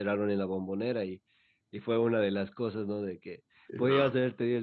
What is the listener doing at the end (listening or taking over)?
listening